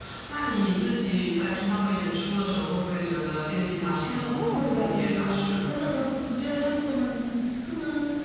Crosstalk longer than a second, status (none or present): present